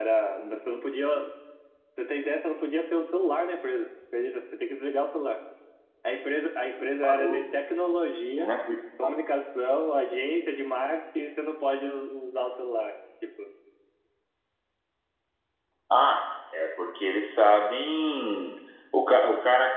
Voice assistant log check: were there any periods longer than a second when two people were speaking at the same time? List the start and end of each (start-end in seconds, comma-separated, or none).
none